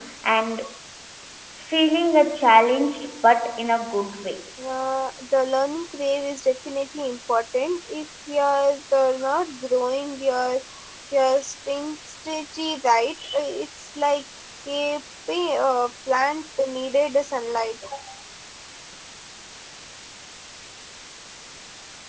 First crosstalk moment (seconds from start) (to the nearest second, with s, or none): none